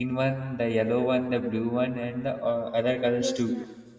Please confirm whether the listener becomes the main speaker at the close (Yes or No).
Yes